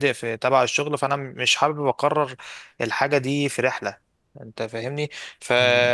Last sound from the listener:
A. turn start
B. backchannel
B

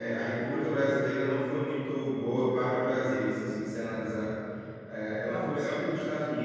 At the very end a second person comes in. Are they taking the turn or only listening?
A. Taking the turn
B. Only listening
B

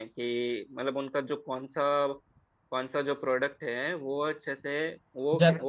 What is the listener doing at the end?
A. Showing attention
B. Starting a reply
A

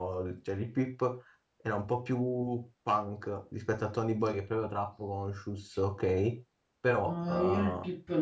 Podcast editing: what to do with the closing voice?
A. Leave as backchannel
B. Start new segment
B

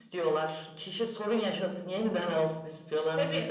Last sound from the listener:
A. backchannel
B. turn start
B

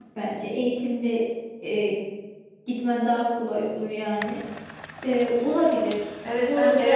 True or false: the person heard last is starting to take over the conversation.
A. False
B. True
B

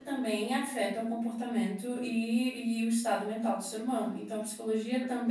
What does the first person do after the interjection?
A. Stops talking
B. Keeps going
B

